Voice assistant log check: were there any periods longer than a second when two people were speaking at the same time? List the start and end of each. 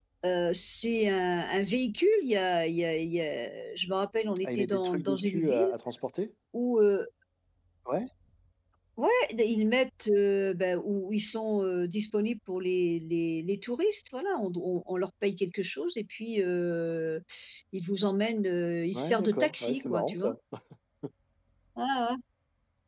4.4-5.7, 18.9-20.3

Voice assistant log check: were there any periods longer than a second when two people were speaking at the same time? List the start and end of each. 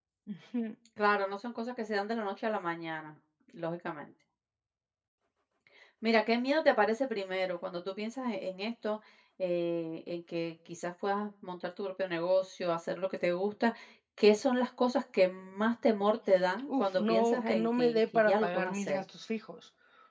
16.7-19.0

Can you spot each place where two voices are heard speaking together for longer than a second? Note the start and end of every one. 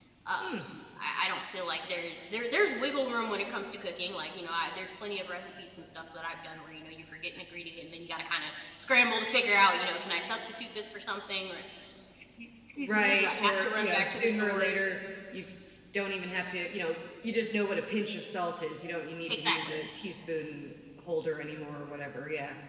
12.8-14.8

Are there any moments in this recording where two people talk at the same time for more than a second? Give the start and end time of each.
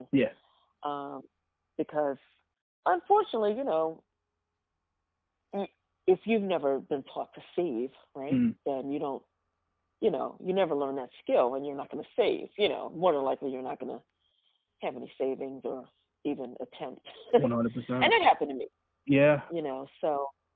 none

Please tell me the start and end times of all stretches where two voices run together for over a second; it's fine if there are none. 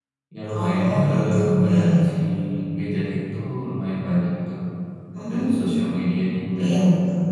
0.6-2.1

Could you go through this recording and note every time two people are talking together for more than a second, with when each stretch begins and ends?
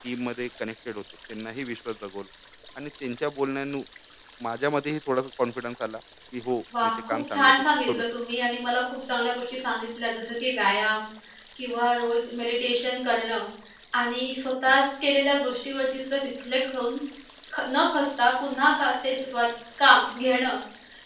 6.8-8.0

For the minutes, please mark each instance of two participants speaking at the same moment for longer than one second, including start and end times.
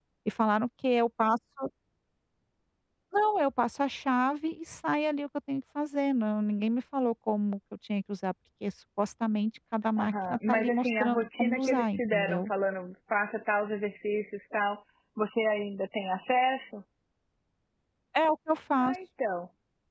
10.0-12.5

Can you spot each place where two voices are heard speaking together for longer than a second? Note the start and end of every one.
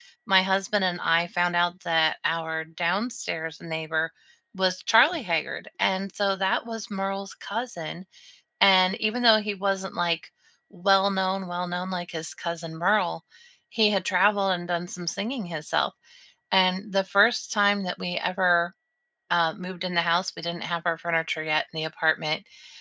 none

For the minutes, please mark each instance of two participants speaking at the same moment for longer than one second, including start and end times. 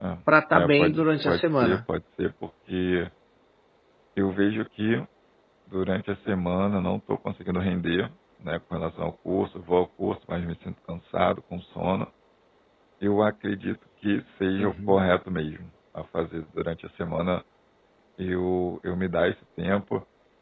0.5-1.8

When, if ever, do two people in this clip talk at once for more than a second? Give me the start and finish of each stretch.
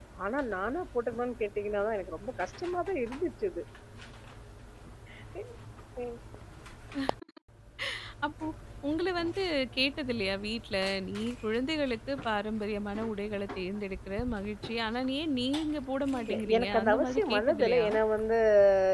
16.2-17.9

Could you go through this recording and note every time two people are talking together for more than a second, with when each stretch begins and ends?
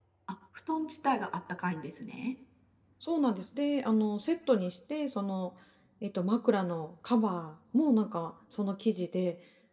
none

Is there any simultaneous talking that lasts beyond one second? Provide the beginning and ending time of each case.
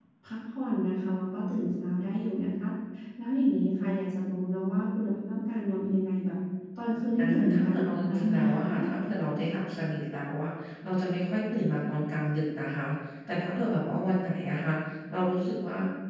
7.2-8.6

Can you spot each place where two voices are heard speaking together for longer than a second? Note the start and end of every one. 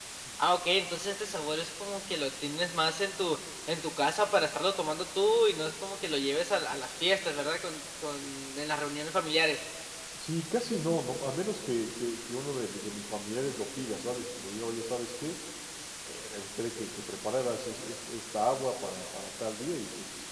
none

